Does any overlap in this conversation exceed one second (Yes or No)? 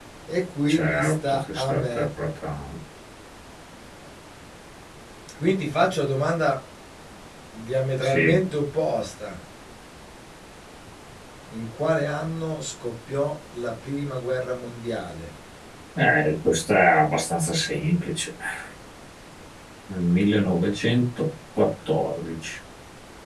Yes